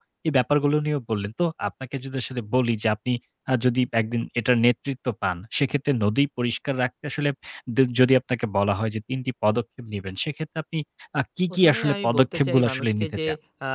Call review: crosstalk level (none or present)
present